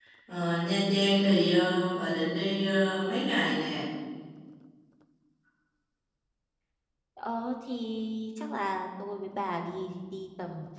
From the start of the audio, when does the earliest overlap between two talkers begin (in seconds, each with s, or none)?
none